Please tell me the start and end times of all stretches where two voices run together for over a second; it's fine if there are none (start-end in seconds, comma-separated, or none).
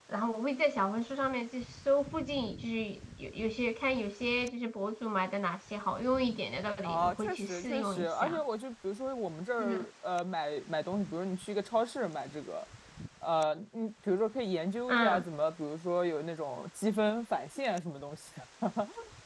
6.8-8.4